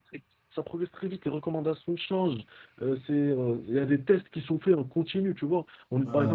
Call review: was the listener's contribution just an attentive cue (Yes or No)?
Yes